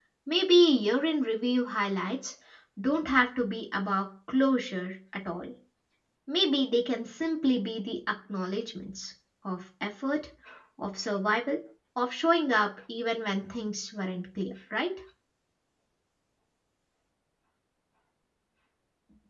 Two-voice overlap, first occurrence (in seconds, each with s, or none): none